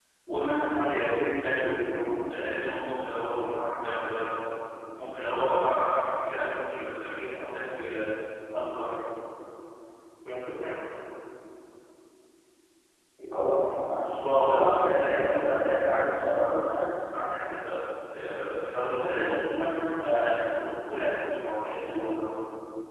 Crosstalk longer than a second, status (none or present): present